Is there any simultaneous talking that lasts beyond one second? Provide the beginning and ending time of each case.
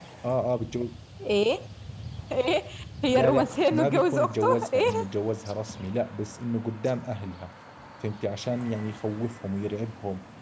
3.0-4.8

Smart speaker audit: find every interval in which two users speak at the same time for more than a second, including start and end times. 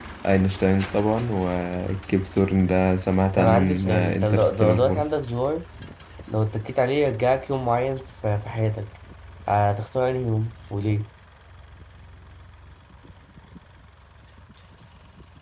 3.4-5.1

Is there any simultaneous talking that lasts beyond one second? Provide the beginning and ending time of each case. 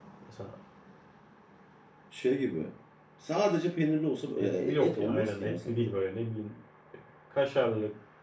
4.4-5.8

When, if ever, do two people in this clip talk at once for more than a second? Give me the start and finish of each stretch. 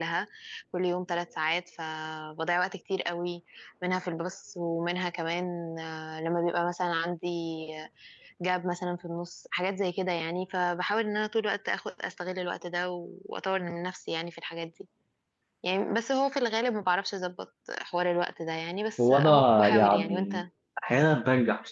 19.0-20.3

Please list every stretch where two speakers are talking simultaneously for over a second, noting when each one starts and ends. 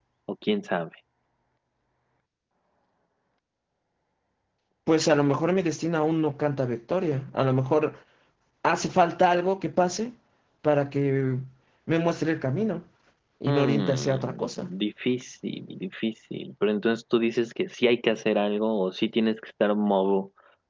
13.5-14.7

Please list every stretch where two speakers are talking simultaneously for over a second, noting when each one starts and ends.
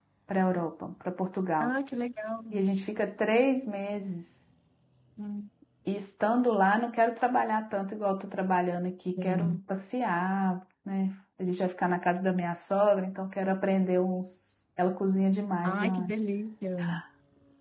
none

